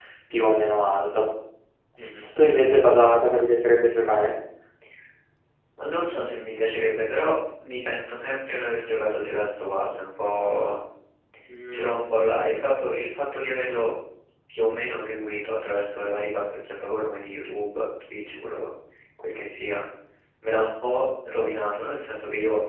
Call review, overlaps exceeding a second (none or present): none